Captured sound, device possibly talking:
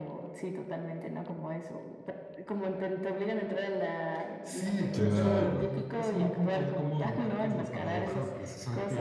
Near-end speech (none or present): present